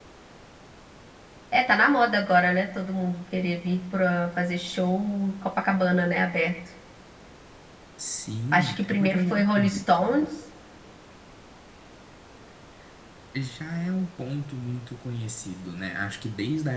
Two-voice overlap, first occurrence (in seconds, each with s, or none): 8.5 s